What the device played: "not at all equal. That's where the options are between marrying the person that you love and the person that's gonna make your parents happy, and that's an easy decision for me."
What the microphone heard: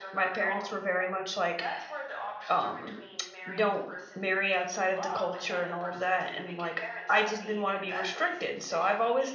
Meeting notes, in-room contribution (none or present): present